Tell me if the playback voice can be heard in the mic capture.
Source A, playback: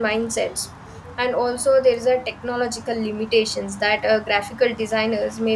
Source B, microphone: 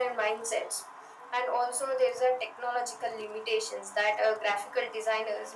Yes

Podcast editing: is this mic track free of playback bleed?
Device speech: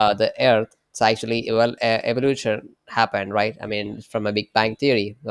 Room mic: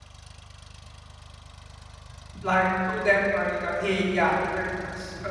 Yes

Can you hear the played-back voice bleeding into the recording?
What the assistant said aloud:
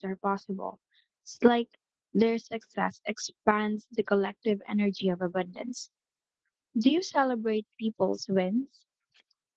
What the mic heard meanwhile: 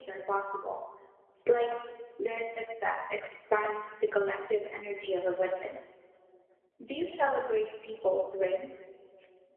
Yes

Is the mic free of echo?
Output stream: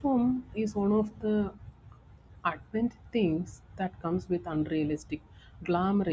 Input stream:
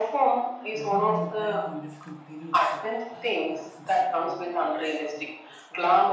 No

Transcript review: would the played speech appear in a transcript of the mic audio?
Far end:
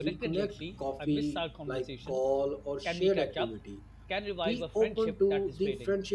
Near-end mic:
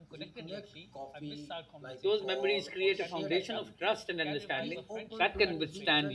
Yes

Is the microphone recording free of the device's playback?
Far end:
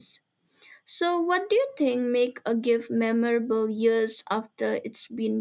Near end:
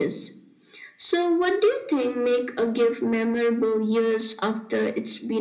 No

